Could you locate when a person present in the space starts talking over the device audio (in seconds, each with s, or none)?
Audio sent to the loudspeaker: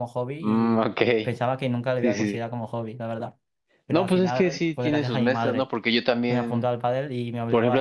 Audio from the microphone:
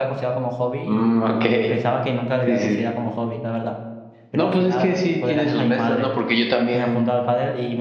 none